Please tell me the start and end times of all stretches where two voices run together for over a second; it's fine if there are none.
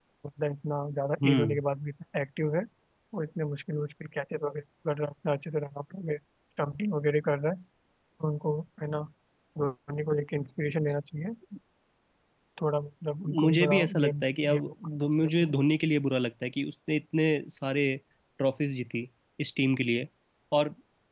13.4-15.5

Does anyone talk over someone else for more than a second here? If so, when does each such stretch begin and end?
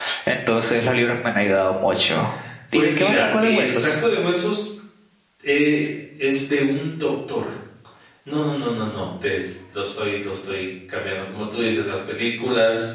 2.7-4.0

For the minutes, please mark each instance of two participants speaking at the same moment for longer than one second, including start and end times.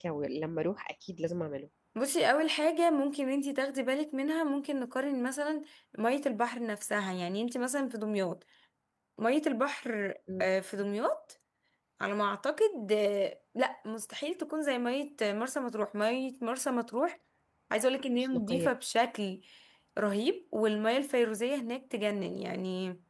none

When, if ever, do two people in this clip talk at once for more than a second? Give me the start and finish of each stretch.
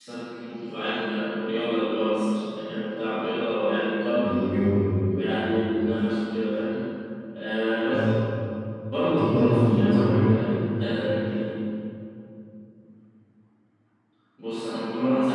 9.2-10.4

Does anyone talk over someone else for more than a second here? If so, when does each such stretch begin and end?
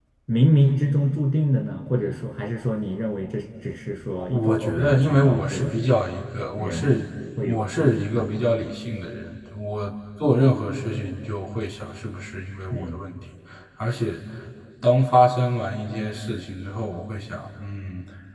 4.3-5.8

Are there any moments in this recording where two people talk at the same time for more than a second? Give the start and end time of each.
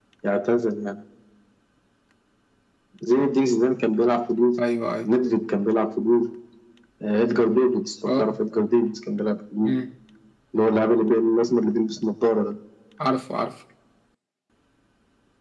none

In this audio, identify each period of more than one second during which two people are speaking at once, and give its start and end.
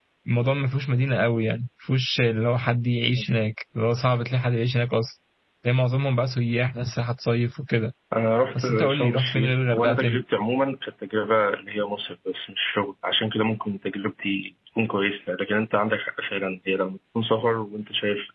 8.6-10.2

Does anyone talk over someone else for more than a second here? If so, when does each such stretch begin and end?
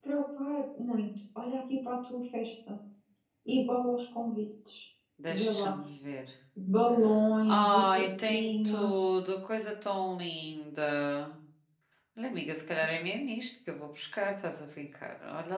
7.5-9.1

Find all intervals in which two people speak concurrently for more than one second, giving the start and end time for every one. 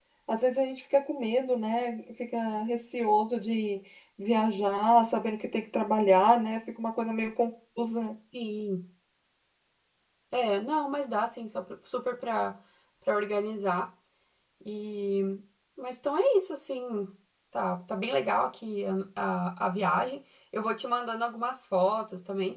none

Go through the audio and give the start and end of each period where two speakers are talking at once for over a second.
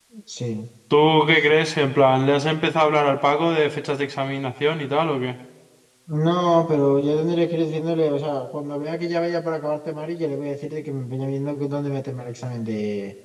none

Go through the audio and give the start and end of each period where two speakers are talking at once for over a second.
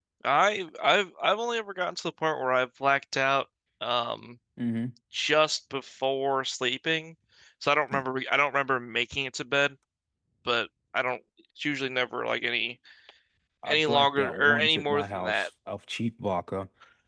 13.7-15.5

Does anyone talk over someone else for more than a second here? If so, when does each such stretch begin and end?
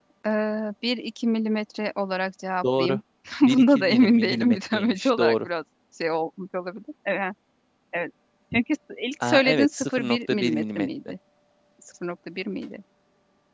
3.4-5.5, 9.2-11.1

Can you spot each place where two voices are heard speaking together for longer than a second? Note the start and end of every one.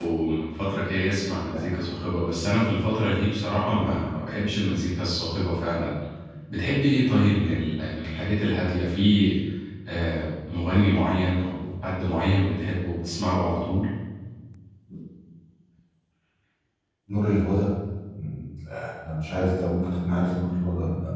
none

